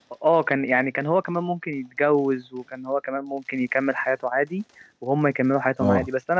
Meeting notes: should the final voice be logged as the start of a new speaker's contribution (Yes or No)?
No